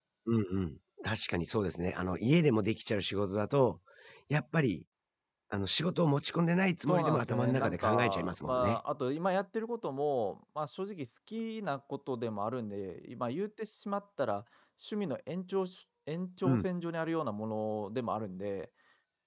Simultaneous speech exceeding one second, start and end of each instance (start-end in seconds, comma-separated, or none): 6.9-8.8